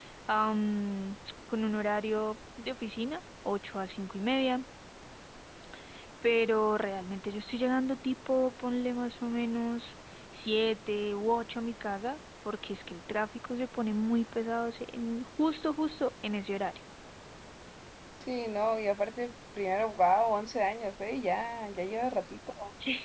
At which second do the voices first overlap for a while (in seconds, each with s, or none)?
none